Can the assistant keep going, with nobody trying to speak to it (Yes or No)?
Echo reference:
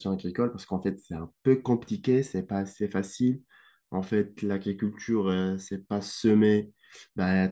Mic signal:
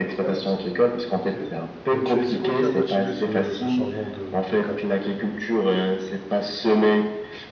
No